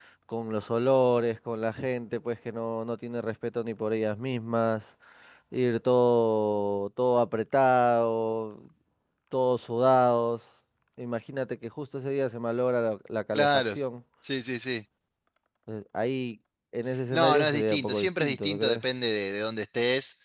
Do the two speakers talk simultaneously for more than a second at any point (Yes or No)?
Yes